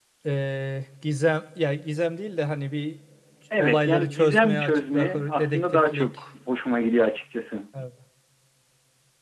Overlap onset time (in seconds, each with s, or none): 3.6 s